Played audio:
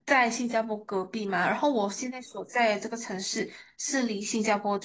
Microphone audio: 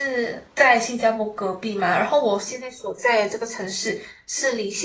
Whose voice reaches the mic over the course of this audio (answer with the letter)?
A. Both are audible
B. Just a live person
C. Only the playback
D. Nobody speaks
C